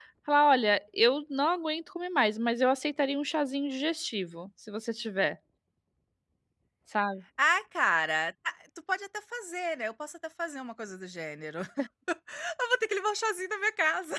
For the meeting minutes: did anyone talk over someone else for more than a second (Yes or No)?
No